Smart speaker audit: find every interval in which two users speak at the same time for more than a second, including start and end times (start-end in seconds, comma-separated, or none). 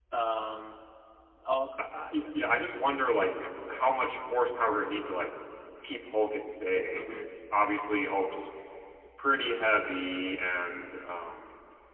none